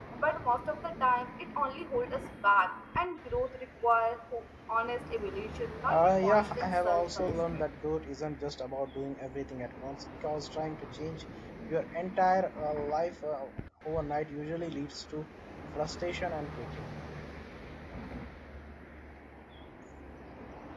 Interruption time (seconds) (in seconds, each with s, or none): 5.8 s